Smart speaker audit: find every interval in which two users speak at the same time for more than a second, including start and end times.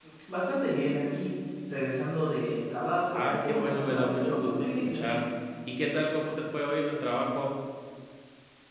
3.1-5.1

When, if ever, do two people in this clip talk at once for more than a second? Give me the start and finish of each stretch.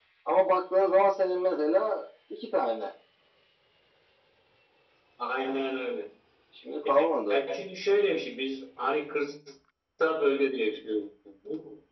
none

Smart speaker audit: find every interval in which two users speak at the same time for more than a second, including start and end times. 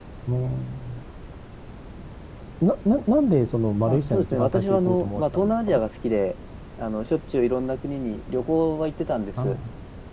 3.9-5.8

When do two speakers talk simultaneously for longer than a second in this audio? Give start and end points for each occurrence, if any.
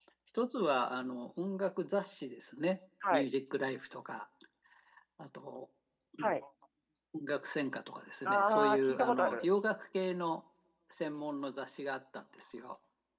8.2-9.4

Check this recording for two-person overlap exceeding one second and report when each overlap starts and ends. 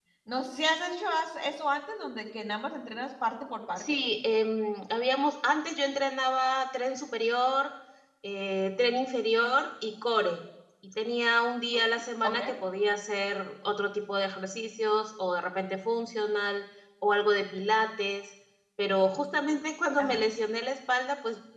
none

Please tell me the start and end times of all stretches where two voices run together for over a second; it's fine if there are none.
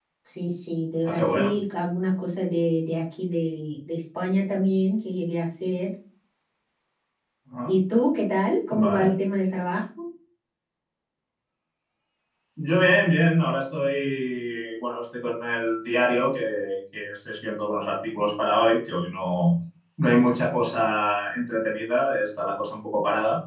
none

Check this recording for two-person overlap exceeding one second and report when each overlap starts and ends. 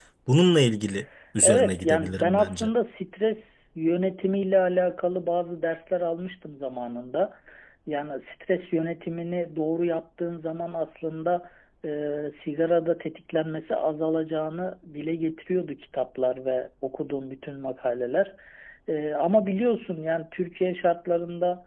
1.4-2.7

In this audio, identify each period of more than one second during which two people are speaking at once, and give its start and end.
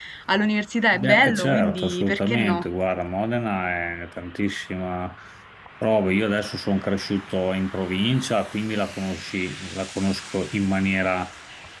0.9-2.7

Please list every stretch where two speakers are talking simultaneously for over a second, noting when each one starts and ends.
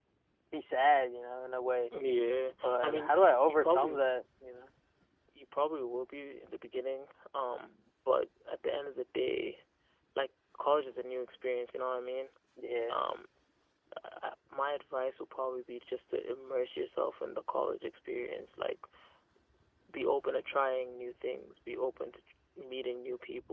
2.6-4.0

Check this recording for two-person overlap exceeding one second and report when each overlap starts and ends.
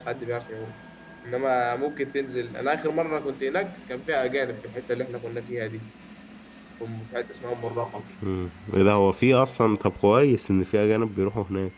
none

